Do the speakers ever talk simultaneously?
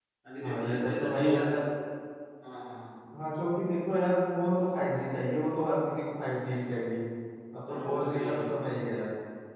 Yes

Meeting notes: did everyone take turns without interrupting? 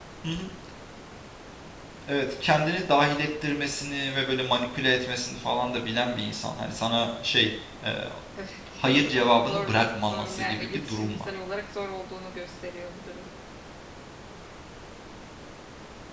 No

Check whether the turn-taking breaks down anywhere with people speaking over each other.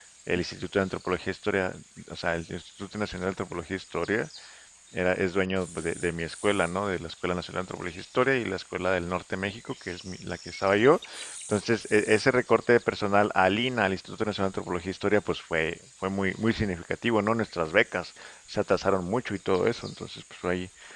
No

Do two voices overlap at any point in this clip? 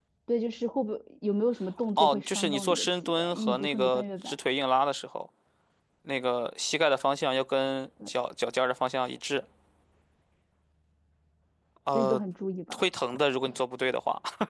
Yes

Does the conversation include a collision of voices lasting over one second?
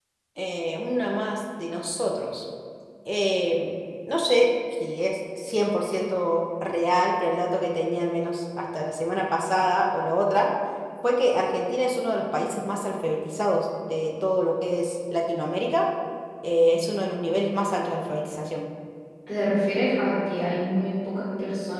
No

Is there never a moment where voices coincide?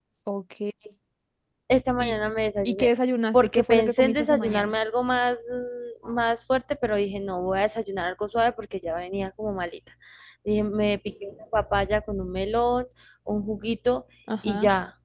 No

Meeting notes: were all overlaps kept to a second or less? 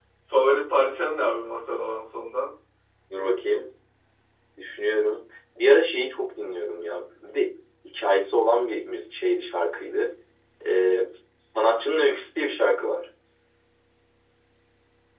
Yes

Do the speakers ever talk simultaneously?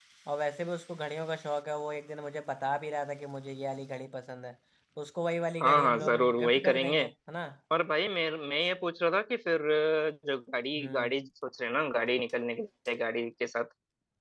Yes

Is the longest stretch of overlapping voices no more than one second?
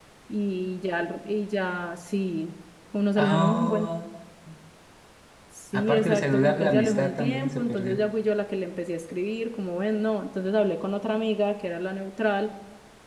No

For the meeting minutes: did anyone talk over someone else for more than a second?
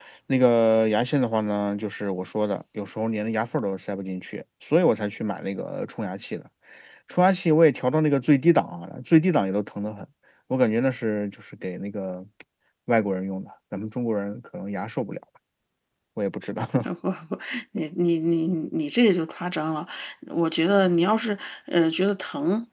No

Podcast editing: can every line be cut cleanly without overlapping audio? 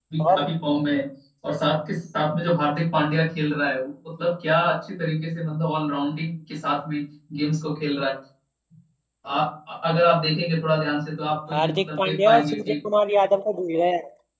No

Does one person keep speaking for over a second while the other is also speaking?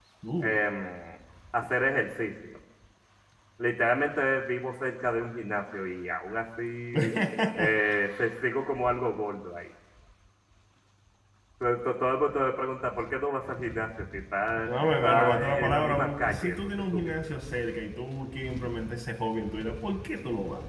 Yes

